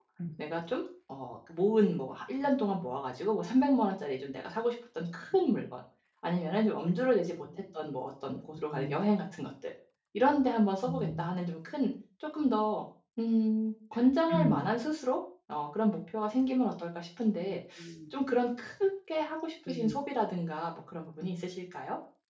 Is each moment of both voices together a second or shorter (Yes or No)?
Yes